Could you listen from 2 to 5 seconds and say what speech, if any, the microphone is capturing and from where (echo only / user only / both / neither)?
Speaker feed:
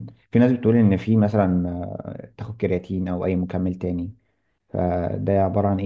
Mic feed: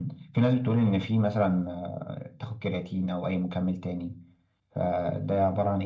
echo only